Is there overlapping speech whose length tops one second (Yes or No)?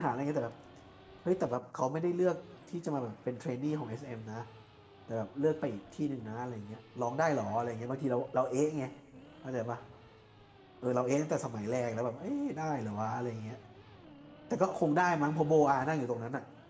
No